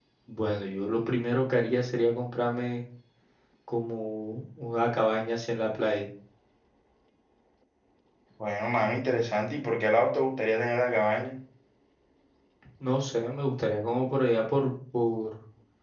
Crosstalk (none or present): none